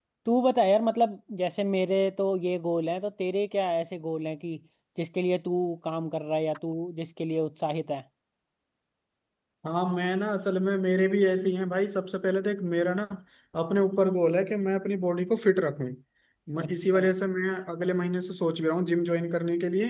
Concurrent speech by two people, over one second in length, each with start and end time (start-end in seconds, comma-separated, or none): none